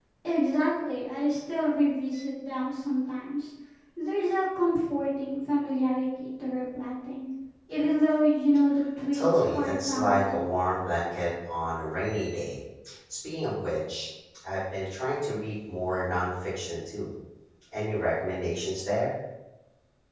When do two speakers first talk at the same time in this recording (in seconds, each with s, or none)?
9.1 s